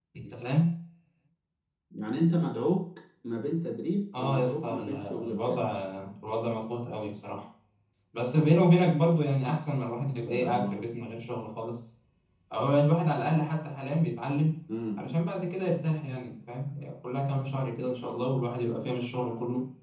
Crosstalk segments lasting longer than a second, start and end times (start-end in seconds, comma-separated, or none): 4.2-5.6